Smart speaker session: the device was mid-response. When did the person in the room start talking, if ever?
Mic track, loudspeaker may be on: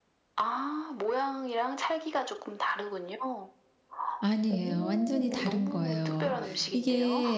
4 s

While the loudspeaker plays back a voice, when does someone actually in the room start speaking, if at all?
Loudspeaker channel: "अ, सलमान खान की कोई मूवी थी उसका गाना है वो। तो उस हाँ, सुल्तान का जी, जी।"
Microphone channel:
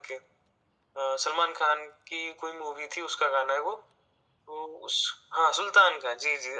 none

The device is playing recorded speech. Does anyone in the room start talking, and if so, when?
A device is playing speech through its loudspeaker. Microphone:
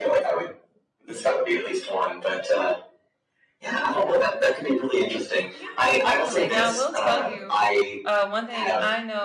6 s

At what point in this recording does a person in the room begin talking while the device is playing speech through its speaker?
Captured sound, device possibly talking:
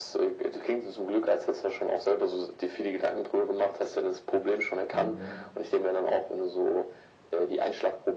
5 s

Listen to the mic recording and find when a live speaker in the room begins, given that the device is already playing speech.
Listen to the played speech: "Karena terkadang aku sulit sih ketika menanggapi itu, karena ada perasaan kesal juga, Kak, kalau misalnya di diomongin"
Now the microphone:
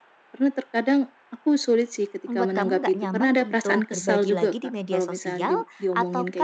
2 s

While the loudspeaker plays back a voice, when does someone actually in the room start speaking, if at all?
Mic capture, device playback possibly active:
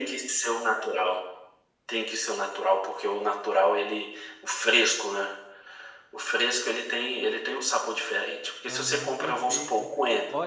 9 s

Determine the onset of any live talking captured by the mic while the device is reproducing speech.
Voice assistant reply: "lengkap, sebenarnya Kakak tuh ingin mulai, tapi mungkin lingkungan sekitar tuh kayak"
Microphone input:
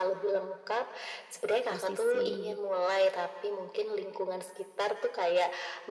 2 s

